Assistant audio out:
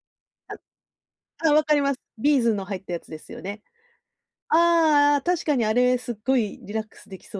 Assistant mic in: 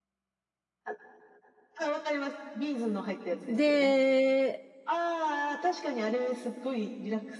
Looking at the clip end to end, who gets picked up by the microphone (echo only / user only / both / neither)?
both